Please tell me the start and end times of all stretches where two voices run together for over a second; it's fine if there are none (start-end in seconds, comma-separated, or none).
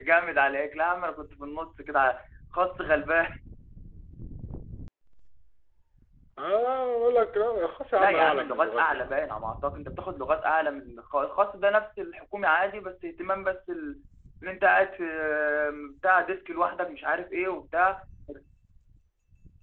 8.0-9.2